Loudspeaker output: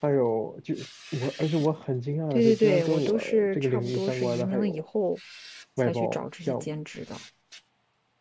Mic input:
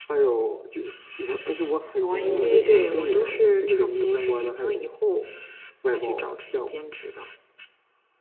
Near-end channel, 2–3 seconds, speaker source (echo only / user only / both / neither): both